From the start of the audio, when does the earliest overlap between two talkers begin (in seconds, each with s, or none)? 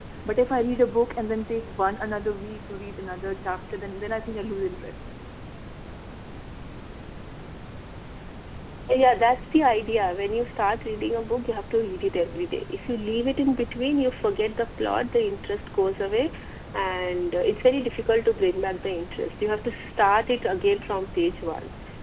none